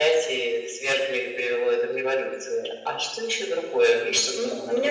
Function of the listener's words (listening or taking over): taking over